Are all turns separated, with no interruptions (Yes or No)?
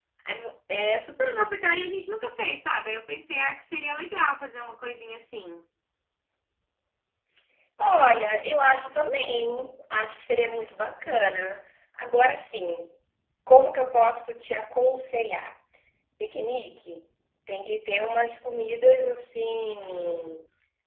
Yes